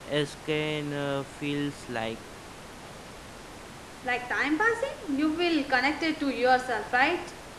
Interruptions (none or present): none